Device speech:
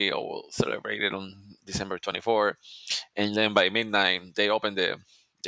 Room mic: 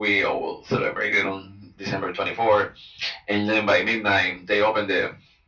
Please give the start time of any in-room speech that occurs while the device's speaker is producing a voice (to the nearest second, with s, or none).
none